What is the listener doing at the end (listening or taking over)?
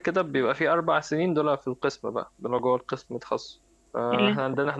listening